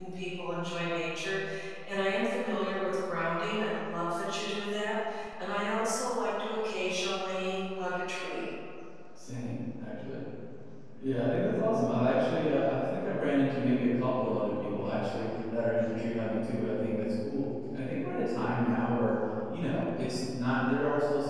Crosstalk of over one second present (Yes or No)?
No